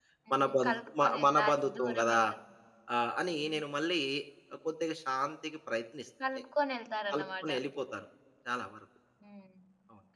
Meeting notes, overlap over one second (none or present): present